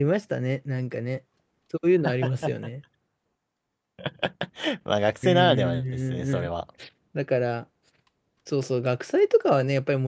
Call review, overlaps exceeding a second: present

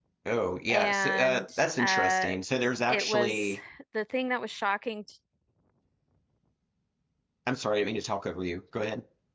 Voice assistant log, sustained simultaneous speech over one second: present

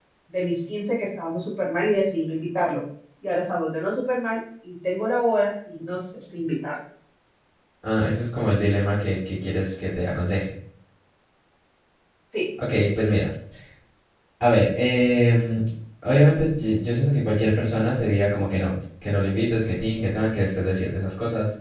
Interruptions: none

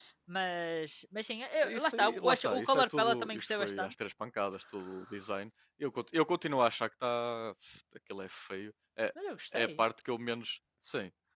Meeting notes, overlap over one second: present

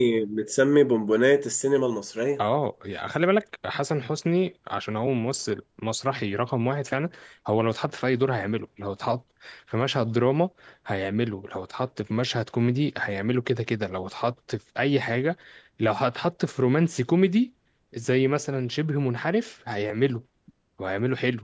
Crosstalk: none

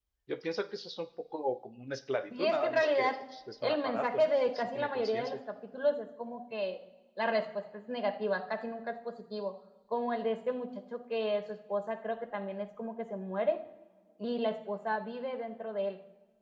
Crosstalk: present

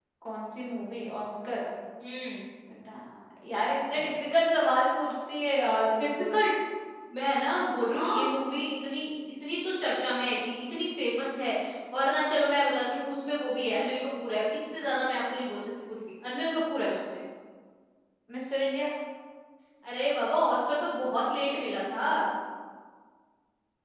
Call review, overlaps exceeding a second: none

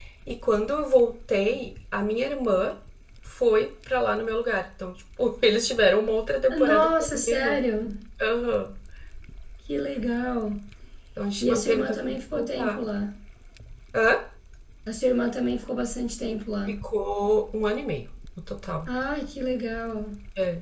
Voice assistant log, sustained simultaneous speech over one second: present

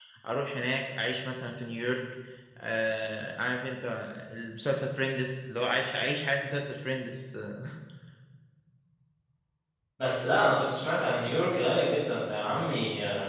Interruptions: none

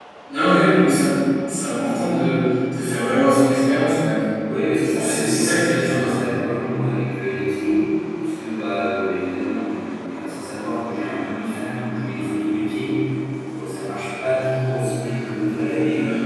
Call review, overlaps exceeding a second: present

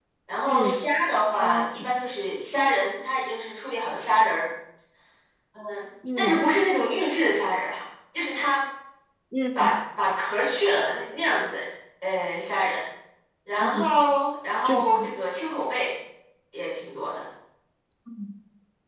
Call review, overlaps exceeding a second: none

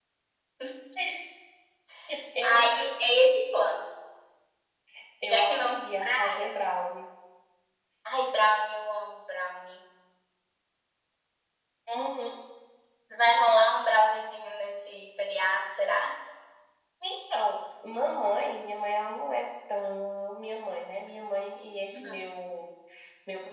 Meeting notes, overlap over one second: present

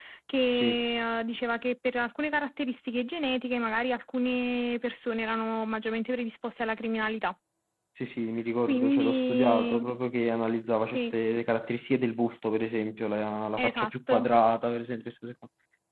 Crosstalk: present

